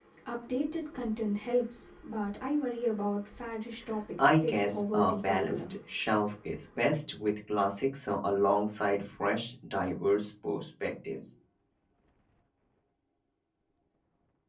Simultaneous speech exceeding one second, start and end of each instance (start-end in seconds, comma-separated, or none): 4.2-5.6